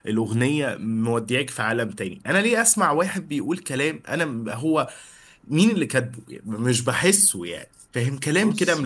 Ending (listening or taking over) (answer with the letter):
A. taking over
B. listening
B